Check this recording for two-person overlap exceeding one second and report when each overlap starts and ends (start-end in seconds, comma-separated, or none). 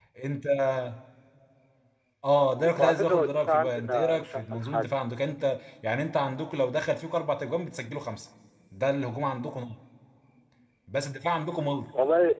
2.5-5.0